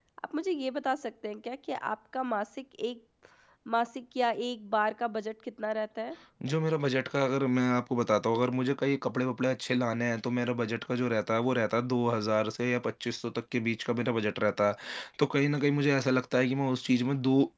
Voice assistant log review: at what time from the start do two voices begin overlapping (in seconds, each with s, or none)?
none